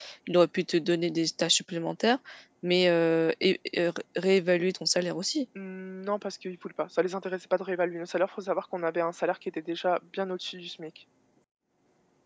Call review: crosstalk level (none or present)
none